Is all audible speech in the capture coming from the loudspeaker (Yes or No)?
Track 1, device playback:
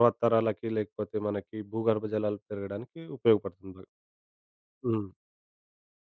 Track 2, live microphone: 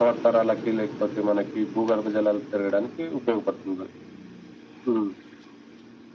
Yes